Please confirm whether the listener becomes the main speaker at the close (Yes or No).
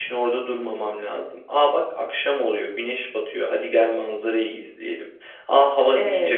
No